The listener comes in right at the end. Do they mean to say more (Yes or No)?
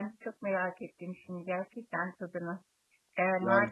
No